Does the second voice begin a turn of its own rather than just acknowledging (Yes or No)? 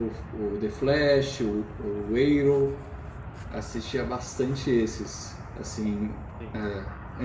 No